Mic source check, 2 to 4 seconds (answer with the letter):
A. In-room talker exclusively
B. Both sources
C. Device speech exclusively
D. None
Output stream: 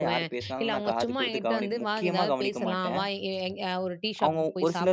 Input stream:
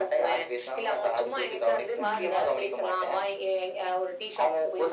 C